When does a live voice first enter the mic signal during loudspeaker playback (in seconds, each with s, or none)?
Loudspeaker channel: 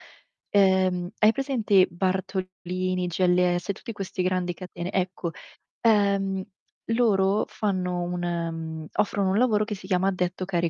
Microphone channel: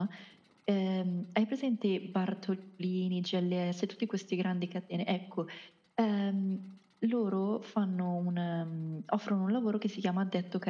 none